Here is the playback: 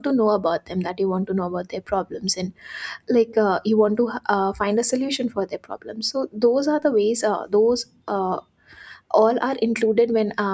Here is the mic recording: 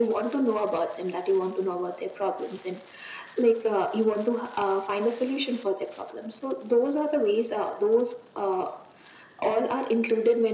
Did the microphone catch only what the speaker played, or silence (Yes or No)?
Yes